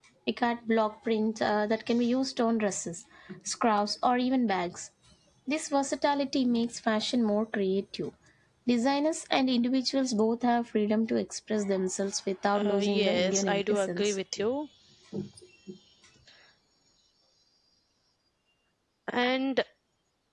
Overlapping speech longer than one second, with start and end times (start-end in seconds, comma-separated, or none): 12.6-14.2